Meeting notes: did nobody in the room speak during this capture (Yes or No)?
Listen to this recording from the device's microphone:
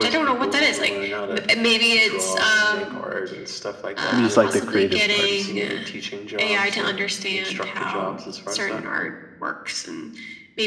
No